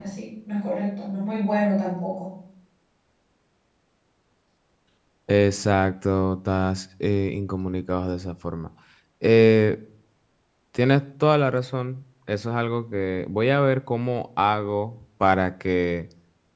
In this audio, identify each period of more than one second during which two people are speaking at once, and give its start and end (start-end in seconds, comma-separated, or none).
none